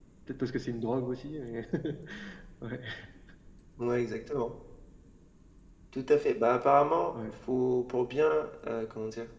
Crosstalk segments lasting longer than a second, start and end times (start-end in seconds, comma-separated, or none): none